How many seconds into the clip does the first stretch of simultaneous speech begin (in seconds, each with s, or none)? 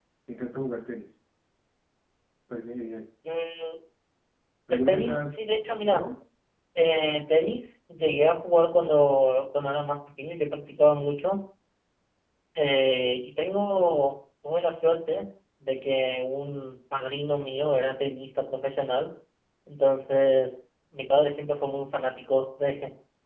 4.7 s